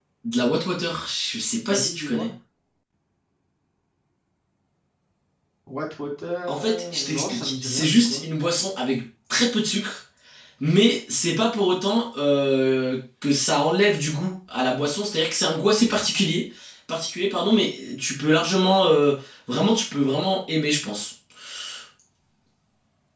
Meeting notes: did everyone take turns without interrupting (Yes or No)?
No